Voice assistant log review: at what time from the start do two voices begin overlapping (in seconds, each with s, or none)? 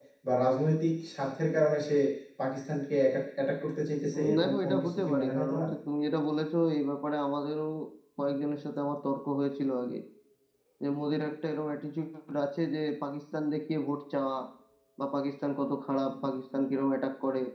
4.1 s